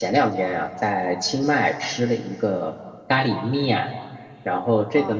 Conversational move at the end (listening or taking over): listening